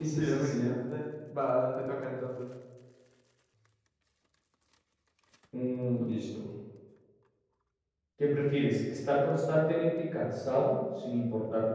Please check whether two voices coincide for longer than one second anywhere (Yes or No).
No